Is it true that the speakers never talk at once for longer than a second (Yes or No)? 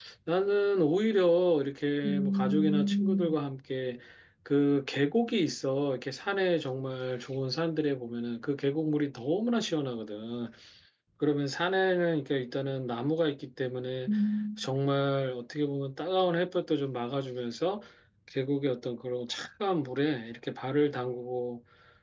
No